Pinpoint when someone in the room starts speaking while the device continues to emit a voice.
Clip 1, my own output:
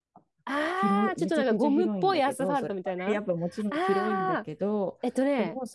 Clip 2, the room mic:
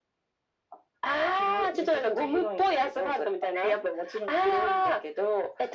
none

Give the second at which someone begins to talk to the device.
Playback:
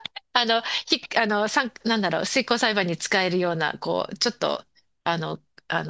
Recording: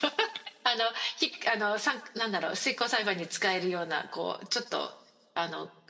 none

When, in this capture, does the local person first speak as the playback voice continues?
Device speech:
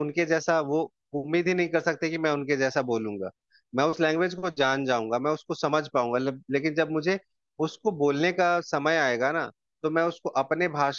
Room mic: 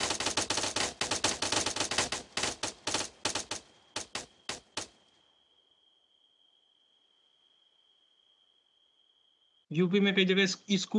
9.7 s

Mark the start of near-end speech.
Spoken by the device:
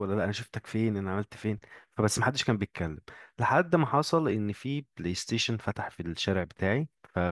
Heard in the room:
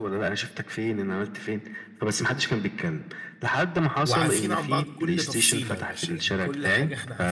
4.0 s

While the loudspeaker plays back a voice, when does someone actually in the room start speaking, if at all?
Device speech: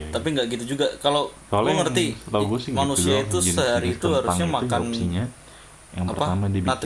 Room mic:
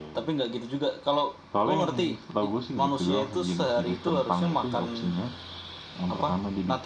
none

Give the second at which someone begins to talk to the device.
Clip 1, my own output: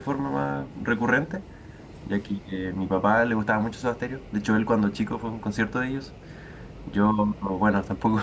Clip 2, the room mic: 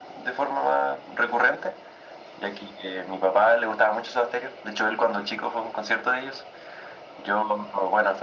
none

